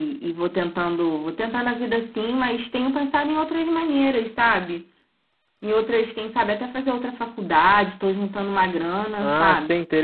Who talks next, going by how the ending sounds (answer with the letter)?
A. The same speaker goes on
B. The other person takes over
B